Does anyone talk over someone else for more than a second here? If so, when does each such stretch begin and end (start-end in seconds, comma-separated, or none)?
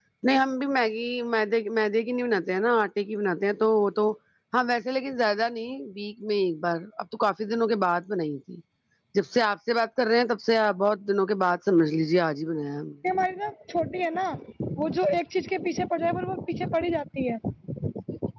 none